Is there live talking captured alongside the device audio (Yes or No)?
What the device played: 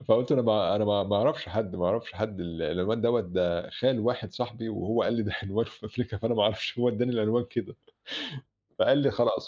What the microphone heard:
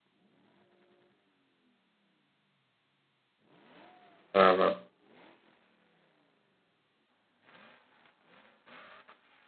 Yes